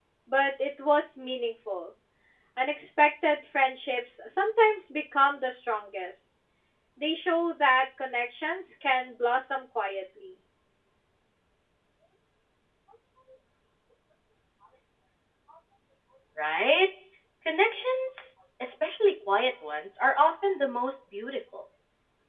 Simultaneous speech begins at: none

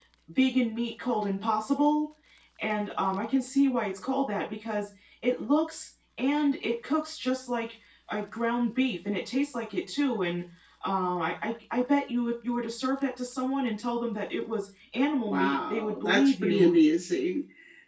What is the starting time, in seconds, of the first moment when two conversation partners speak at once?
15.2 s

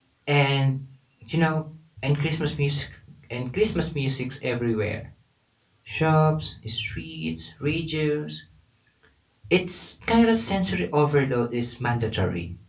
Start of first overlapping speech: none

